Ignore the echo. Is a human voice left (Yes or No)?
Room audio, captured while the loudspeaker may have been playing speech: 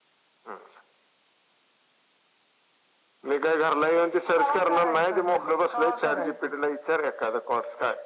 Yes